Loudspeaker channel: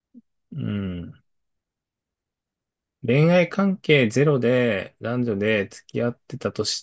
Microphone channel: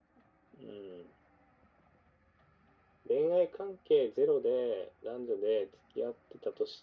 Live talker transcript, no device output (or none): none